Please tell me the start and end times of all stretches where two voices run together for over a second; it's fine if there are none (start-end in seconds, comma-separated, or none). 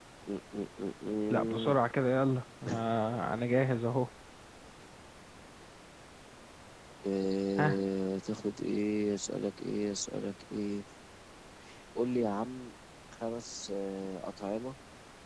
none